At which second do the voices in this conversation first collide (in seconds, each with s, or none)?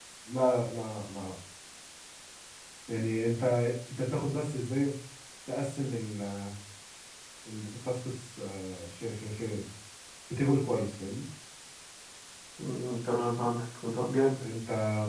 none